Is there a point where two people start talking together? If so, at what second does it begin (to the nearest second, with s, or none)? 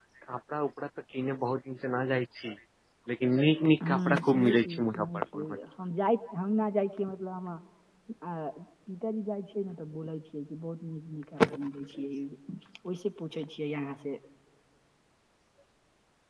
4 s